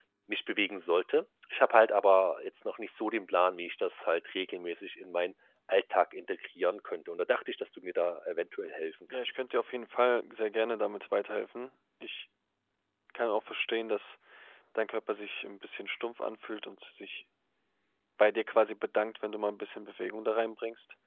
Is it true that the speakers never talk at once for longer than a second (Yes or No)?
Yes